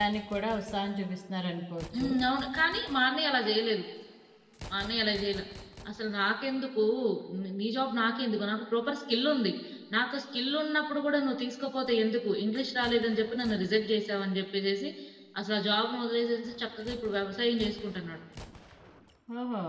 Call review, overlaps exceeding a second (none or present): none